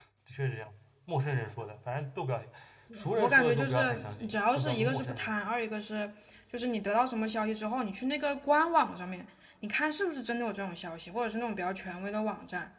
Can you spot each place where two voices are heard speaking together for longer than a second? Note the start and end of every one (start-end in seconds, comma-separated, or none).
3.2-5.3